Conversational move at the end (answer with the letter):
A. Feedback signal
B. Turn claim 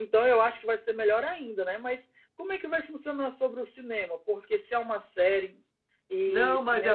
B